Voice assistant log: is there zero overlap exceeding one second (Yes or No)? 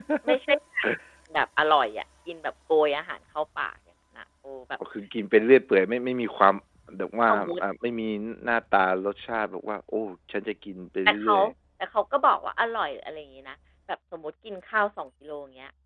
Yes